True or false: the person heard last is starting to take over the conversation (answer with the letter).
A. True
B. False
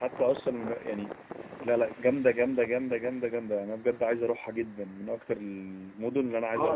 A